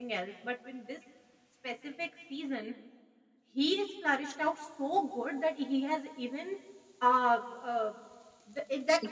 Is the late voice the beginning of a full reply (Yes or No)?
No